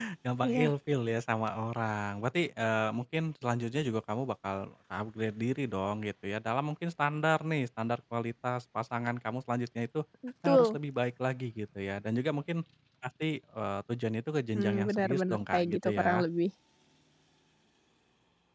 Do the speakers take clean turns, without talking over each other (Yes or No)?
No